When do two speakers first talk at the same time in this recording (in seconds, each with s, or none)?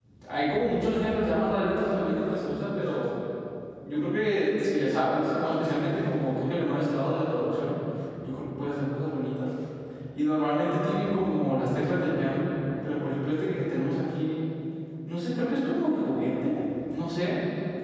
none